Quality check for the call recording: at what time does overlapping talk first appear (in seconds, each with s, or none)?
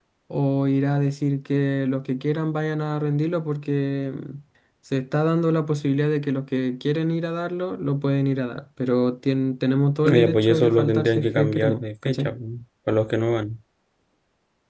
10.0 s